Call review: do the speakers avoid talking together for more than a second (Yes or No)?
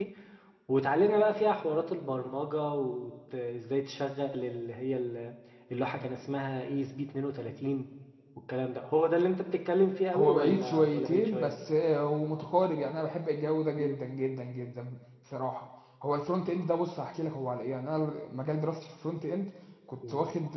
No